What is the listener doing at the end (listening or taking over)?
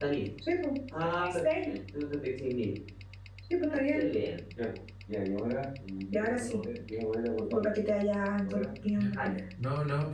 taking over